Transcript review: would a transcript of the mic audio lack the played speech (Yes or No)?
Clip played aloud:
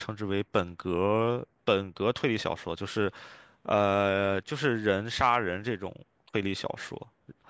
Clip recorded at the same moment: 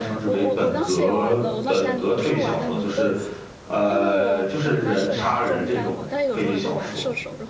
No